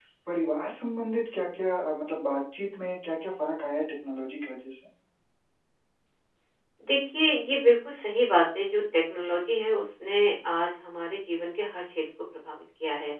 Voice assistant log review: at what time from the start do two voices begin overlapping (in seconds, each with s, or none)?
none